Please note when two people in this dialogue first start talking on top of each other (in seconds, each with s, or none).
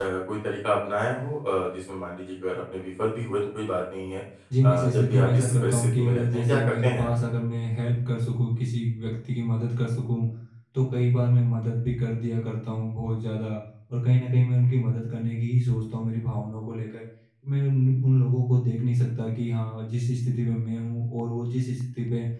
4.6 s